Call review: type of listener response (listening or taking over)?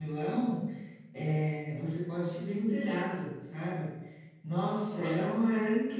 listening